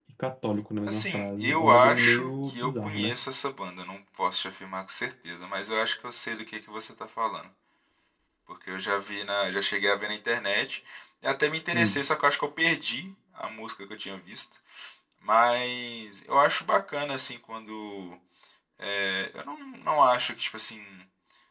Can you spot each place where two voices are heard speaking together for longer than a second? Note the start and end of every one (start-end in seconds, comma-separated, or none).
0.9-3.2